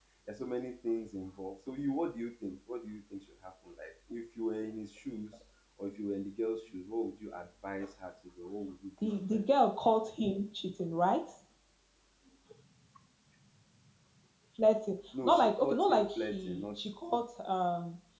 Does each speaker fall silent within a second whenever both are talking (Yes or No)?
No